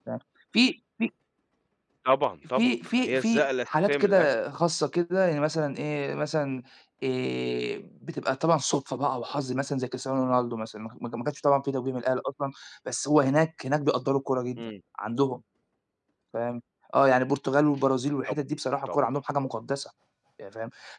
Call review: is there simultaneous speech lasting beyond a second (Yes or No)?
Yes